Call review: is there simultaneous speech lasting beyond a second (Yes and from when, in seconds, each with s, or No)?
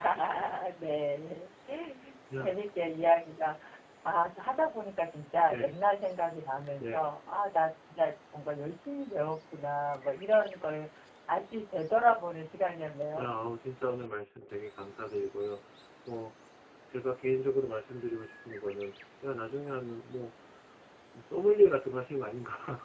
No